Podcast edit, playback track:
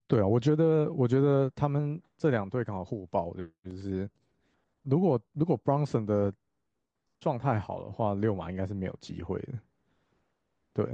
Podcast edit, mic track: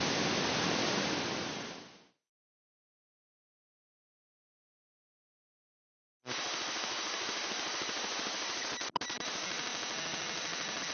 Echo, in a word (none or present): none